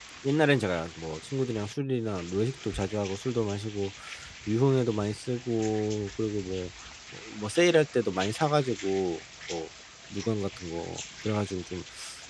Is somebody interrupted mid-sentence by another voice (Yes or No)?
No